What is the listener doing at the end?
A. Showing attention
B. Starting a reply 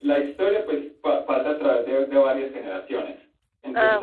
A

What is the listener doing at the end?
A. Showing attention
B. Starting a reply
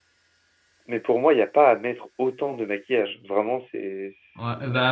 B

